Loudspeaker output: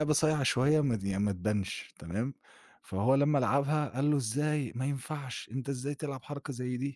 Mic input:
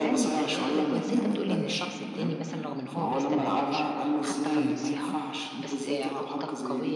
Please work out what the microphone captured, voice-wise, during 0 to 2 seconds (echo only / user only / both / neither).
both